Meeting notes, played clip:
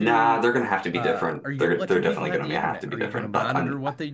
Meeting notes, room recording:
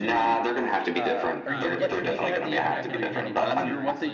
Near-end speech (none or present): present